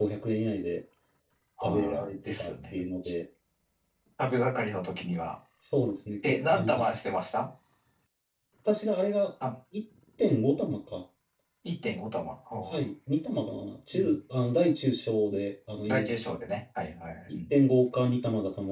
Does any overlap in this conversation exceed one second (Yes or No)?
Yes